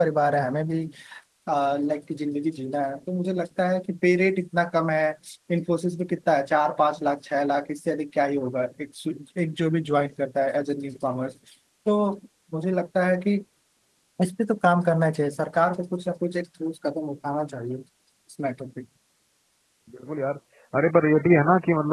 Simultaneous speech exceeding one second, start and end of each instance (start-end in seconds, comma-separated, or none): none